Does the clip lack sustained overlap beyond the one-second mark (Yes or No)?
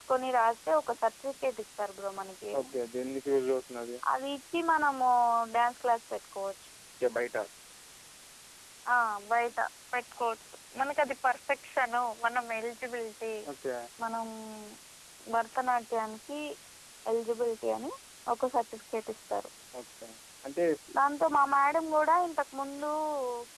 Yes